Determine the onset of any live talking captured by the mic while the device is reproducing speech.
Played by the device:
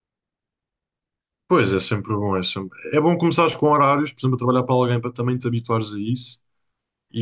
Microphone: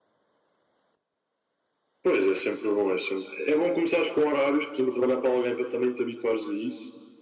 none

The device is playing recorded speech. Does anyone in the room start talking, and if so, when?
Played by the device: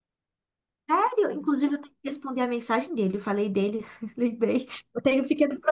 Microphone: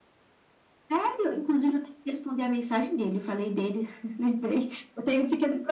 none

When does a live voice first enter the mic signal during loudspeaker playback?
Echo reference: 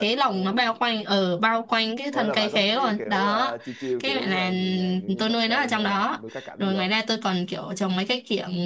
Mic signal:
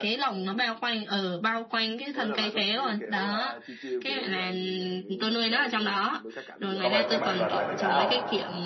6.8 s

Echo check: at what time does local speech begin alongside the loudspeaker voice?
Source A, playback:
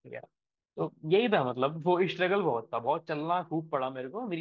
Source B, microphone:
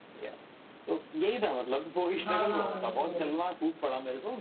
2.2 s

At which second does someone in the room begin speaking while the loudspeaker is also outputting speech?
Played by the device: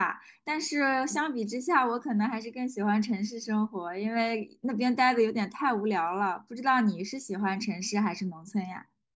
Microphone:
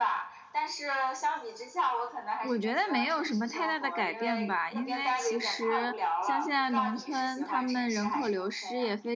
2.4 s

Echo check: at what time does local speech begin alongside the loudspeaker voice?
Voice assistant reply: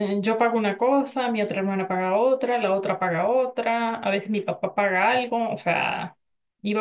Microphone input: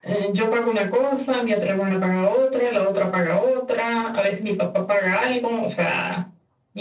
none

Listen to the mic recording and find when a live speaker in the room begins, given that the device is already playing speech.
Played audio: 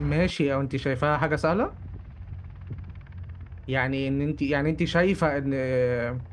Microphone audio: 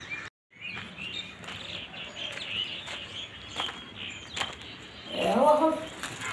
5.1 s

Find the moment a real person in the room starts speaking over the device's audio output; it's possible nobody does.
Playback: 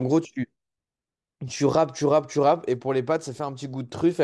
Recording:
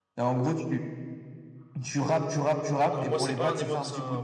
2.9 s

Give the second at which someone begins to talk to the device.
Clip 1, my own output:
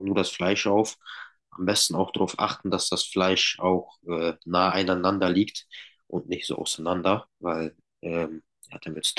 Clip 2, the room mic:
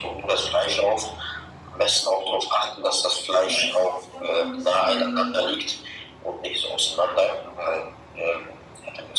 3.5 s

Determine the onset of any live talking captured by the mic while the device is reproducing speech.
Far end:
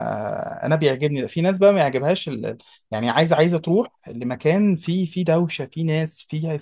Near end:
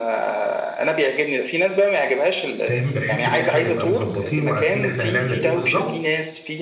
2.6 s

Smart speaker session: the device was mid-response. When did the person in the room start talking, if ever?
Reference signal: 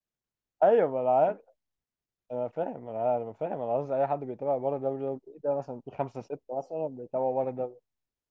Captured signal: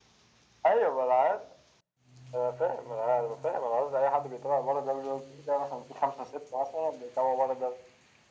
none

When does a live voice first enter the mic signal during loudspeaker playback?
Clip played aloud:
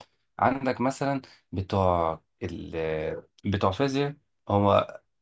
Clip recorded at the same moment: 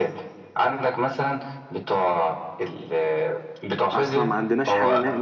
3.9 s

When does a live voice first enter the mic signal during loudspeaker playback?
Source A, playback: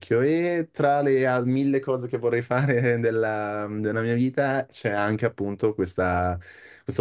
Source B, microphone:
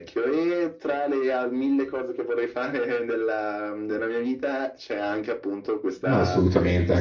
6.0 s

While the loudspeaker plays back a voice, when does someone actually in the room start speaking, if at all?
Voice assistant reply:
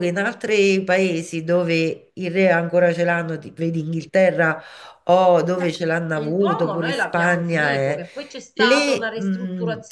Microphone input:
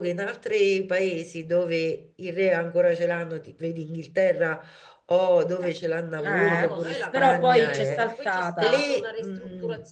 6.2 s

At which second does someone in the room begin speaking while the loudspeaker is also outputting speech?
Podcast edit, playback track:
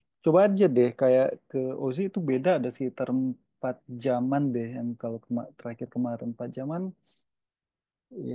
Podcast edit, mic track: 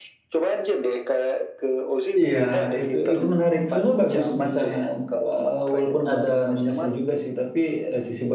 2.2 s

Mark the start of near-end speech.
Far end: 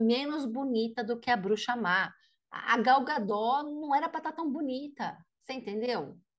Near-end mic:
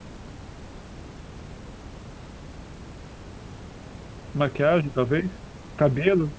4.3 s

